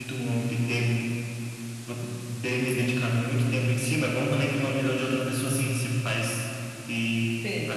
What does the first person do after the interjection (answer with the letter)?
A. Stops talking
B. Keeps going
A